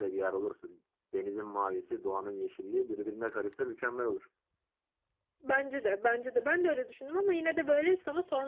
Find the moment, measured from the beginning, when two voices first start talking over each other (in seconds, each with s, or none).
none